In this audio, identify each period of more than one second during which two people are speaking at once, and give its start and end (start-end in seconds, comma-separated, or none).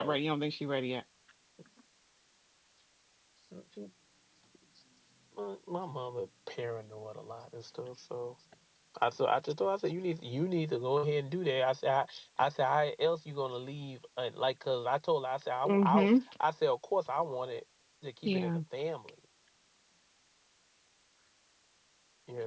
none